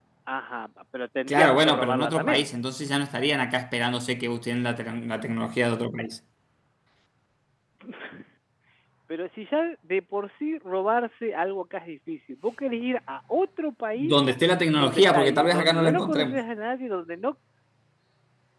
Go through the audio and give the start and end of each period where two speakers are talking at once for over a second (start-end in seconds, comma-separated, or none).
1.3-2.5, 14.8-16.4